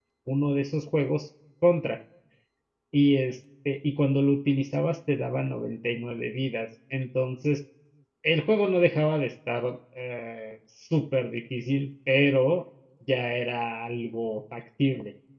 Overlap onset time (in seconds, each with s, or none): none